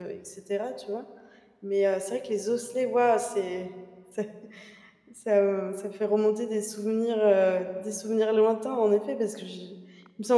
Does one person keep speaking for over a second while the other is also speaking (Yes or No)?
No